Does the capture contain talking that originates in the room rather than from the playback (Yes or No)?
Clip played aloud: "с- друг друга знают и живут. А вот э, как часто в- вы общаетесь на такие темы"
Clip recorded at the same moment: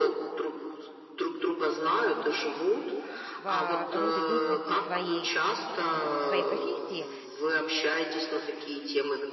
Yes